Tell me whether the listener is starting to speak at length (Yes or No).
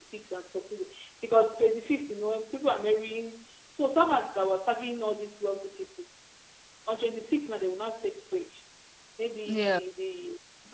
No